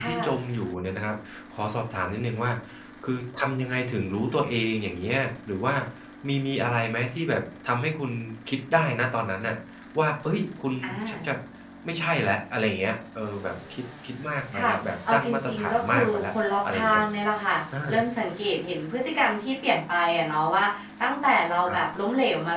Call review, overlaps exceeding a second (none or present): present